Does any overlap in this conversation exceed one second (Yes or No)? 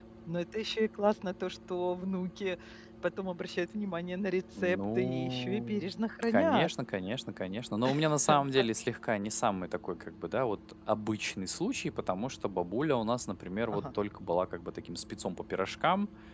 Yes